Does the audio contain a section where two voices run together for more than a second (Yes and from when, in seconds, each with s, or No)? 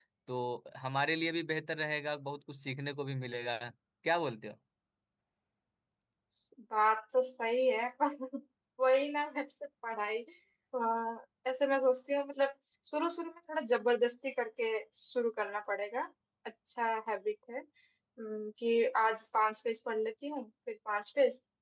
No